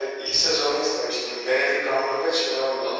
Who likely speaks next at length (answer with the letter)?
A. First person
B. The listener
B